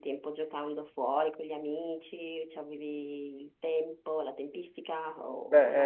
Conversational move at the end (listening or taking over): taking over